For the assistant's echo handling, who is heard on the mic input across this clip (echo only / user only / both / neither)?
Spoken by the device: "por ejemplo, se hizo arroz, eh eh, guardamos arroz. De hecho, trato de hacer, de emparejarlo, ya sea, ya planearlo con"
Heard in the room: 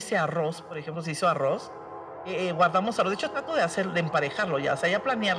echo only